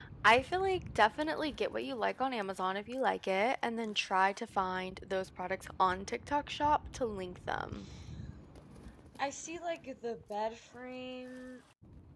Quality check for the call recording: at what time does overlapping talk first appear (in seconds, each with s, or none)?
none